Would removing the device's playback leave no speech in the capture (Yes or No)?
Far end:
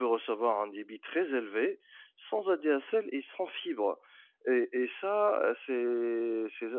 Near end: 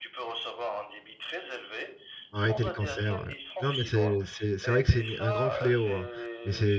No